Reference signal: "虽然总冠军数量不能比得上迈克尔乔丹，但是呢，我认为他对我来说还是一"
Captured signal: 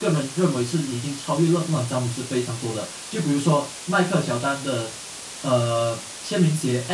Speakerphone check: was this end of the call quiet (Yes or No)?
No